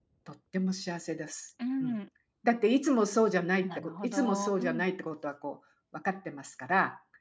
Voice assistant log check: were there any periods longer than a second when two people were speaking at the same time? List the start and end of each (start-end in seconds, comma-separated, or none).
3.6-4.8